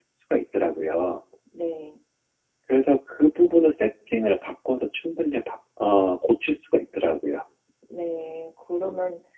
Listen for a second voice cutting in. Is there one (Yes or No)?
No